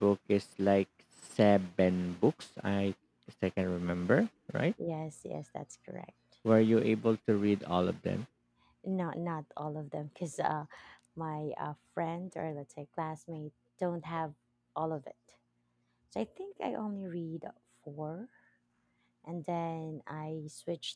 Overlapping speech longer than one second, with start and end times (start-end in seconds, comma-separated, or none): none